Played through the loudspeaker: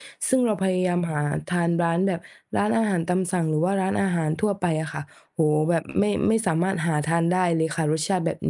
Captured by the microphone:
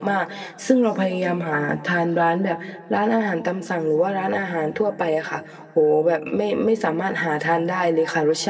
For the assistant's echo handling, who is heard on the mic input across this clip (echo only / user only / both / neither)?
echo only